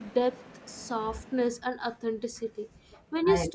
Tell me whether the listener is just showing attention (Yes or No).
Yes